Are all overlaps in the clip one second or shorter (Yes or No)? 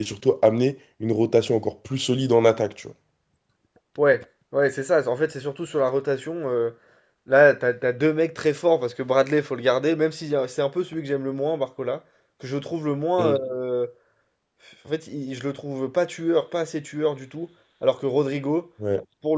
Yes